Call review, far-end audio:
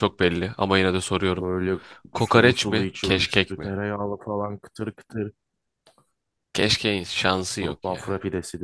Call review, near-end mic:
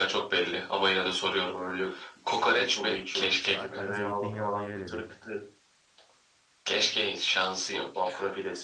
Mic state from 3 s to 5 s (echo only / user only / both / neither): both